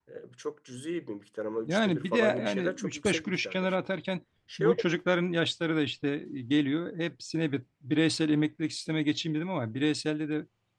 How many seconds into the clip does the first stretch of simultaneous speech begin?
1.7 s

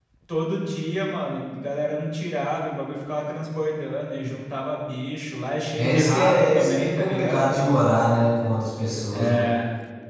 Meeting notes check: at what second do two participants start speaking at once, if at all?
5.8 s

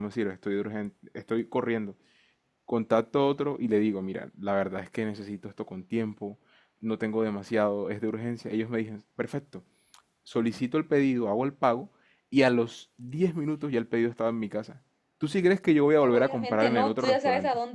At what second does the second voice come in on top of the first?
16.0 s

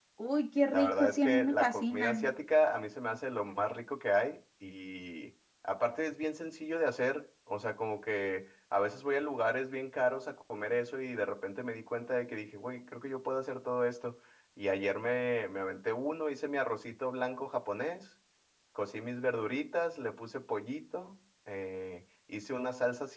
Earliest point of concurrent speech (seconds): 0.7 s

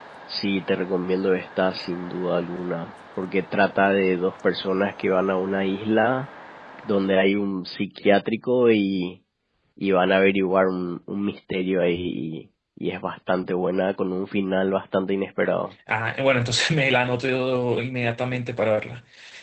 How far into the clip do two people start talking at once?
none

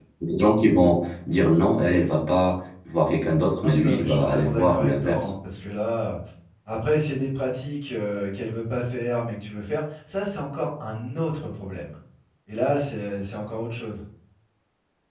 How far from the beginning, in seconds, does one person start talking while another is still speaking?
3.6 s

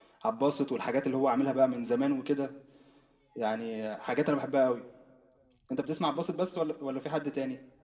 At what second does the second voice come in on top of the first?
none

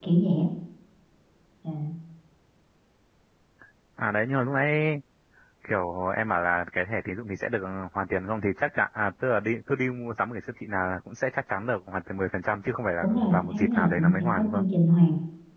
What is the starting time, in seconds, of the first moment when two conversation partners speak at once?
13.0 s

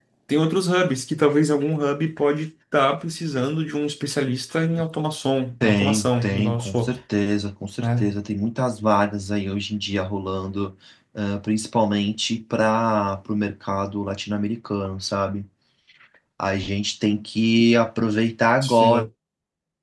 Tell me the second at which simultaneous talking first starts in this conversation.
5.6 s

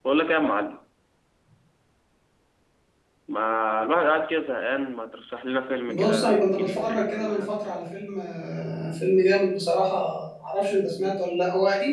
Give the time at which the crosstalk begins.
5.9 s

